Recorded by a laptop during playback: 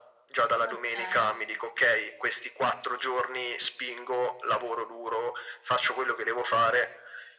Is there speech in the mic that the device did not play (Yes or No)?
Yes